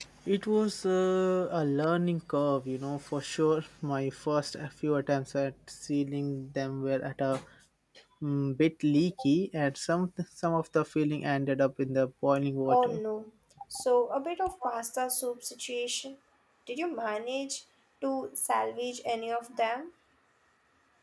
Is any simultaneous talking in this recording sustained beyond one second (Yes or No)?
No